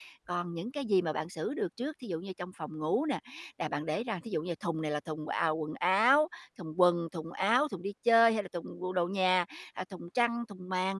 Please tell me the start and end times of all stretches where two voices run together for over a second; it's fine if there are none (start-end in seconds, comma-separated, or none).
none